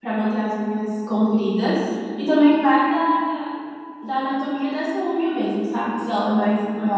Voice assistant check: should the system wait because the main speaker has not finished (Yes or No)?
Yes